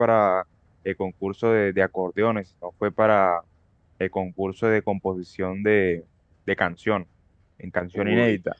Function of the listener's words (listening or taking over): taking over